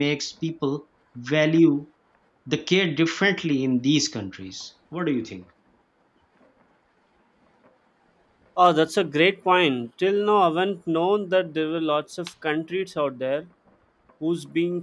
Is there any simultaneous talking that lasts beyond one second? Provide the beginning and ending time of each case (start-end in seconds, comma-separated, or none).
none